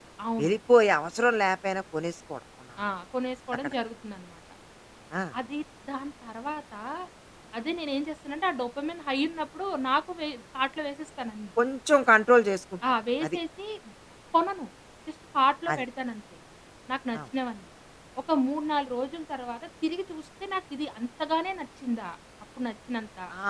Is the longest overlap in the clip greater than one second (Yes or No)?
No